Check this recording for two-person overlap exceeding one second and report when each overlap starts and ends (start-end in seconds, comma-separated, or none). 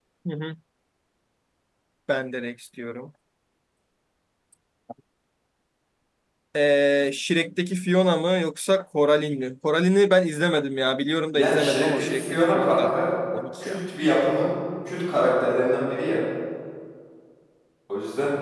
11.3-12.9